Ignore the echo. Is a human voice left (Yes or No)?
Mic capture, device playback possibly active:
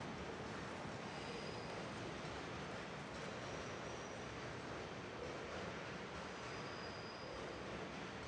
No